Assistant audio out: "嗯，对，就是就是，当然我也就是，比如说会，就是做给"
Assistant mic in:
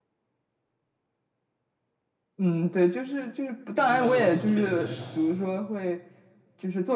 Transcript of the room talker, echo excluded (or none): 印度超市我倒是去的比较少，